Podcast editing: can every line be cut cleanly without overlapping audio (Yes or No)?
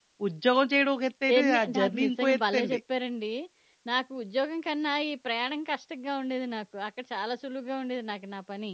No